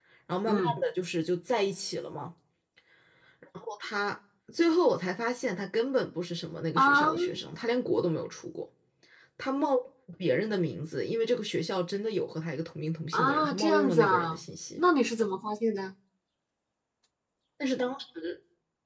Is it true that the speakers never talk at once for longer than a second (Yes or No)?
No